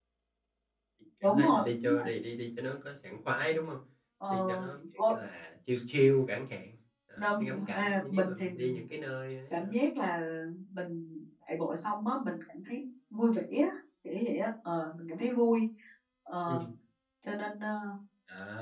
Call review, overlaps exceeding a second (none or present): present